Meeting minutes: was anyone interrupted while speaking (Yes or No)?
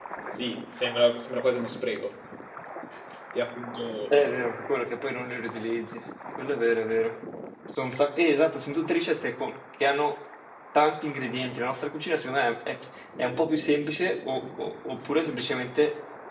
No